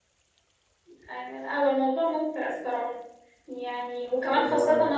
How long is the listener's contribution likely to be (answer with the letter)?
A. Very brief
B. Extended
A